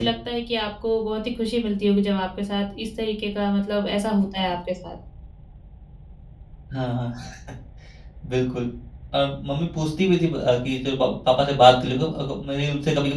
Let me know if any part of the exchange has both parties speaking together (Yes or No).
No